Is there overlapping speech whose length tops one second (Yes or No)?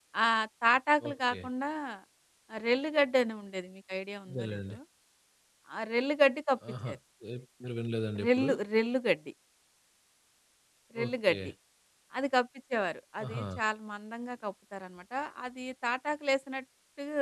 No